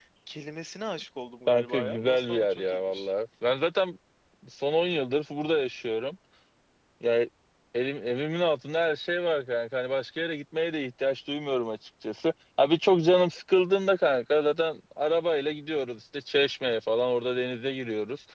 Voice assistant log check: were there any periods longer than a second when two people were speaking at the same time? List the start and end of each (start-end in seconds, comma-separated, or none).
1.5-3.1